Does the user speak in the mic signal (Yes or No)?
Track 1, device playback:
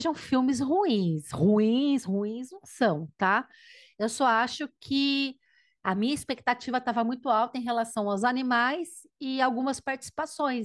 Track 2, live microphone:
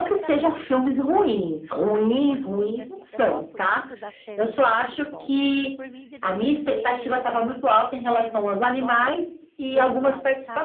Yes